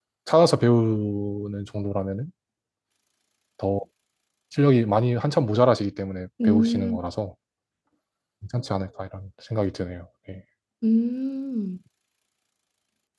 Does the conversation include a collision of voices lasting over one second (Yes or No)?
No